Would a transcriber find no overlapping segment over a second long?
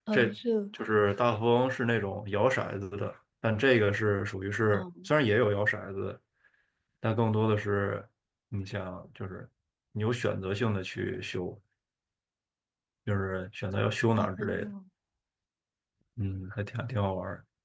Yes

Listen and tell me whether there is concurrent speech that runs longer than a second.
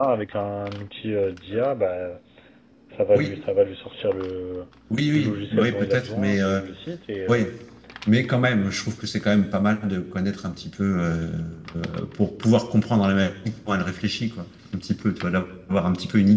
Yes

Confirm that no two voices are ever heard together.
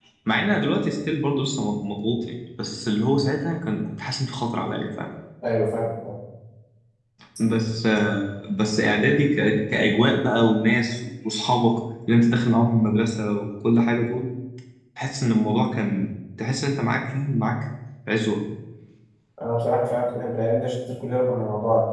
Yes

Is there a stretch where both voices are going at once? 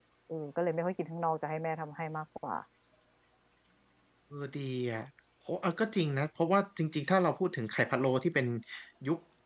No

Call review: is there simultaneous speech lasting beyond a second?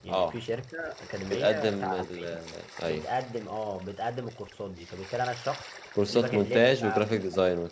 Yes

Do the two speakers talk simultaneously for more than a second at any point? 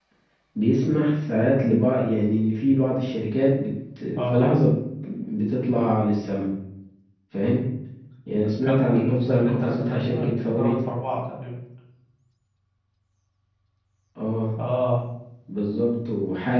Yes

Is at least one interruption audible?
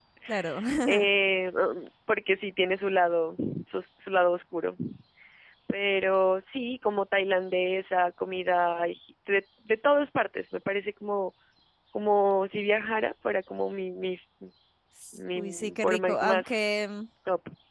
Yes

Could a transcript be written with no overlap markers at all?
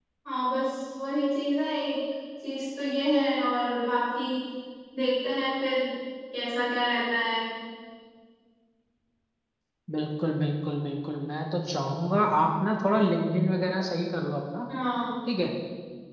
Yes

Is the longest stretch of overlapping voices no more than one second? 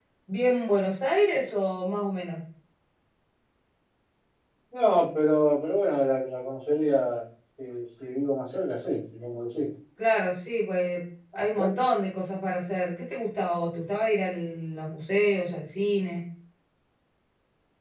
Yes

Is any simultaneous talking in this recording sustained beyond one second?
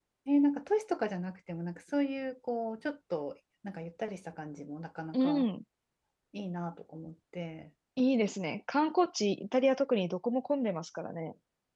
No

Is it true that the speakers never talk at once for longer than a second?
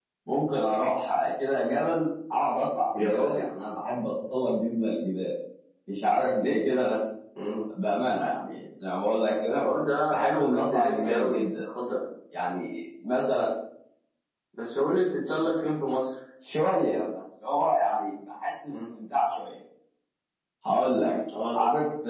No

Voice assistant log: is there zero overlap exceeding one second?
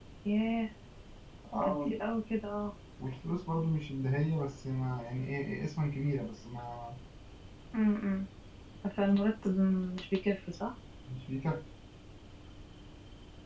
Yes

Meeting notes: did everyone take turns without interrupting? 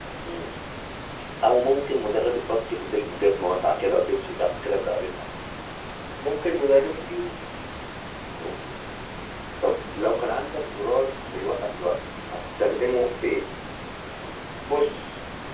Yes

